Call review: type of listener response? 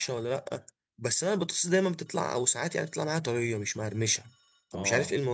taking over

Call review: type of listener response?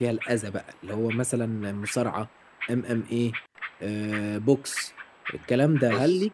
listening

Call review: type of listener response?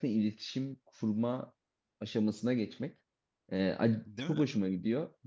listening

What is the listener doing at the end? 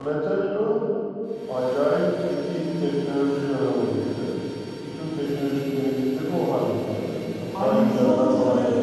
taking over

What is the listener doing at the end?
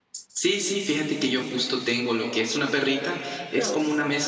listening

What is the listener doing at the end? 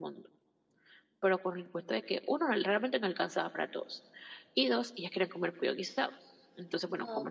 listening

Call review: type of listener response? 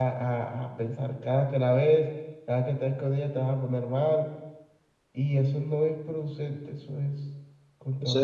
taking over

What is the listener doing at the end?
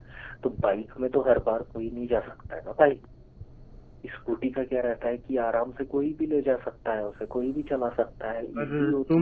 taking over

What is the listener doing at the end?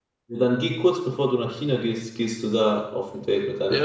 taking over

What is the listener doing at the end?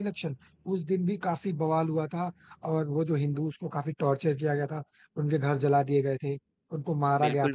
taking over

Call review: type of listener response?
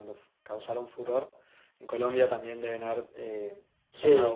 taking over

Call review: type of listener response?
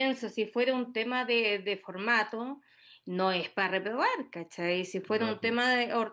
listening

